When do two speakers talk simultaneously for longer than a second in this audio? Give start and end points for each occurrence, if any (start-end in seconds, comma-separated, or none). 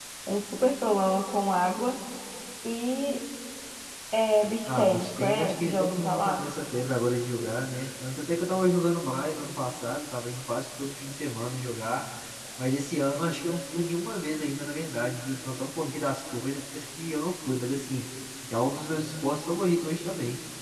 4.7-6.5